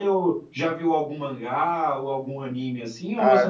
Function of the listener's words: taking over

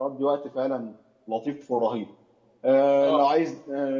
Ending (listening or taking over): listening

